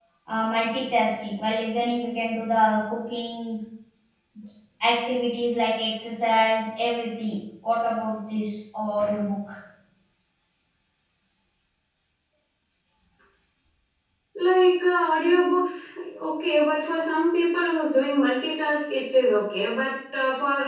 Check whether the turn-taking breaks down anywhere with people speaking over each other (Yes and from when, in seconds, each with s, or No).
No